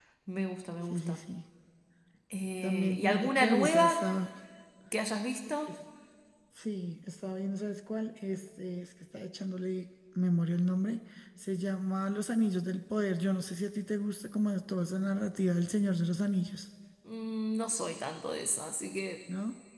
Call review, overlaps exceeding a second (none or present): present